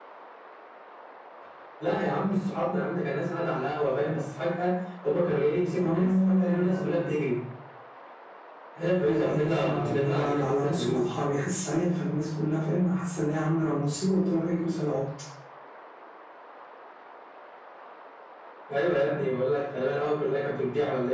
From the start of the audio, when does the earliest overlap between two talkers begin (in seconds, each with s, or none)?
5.8 s